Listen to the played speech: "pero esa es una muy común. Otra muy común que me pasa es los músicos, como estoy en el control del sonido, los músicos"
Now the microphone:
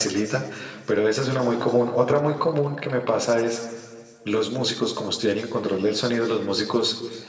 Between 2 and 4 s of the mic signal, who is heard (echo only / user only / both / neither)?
echo only